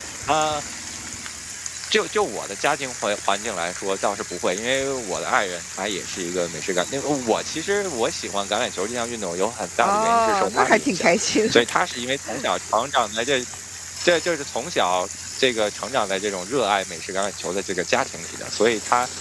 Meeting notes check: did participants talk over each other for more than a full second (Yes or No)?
Yes